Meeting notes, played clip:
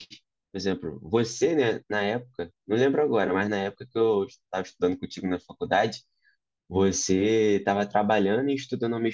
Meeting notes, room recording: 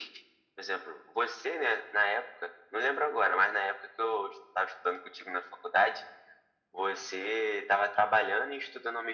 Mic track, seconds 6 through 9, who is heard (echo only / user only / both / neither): echo only